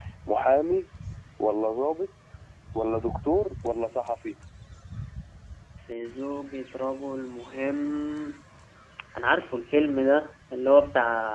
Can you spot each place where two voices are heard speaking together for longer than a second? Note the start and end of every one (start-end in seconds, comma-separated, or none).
none